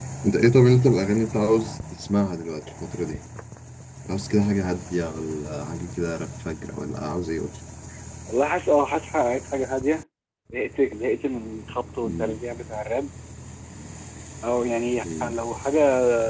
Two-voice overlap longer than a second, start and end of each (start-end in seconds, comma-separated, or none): none